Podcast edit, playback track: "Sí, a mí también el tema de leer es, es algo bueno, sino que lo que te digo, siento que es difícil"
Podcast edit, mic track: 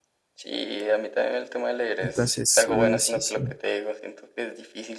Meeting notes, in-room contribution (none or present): present